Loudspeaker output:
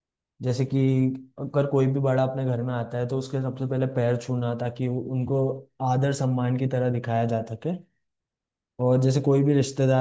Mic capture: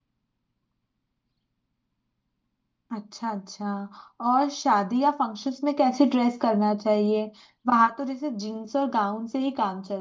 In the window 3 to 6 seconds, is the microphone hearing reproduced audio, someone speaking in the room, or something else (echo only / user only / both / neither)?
user only